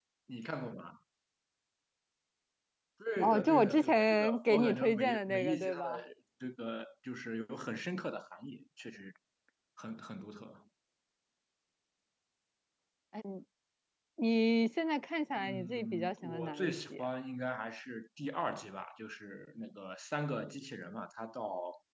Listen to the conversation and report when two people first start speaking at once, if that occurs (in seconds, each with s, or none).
3.2 s